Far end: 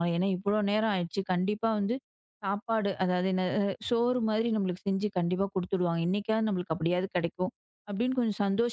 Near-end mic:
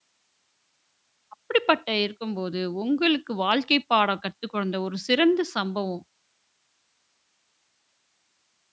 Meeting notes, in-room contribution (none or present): present